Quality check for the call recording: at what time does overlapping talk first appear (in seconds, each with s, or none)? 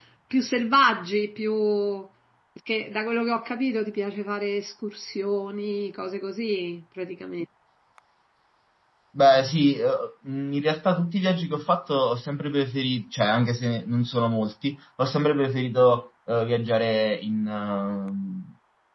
none